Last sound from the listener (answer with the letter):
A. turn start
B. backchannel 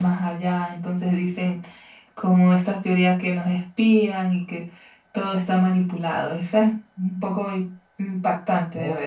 A